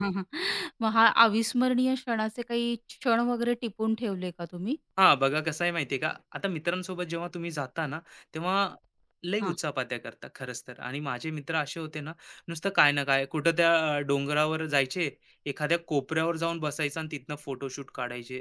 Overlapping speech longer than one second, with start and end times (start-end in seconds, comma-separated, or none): none